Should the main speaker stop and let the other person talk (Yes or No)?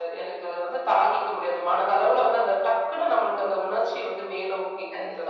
Yes